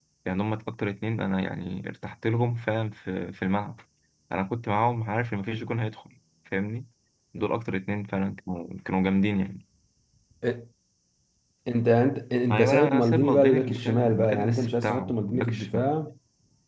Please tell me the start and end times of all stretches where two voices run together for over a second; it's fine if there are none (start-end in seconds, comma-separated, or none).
12.5-15.9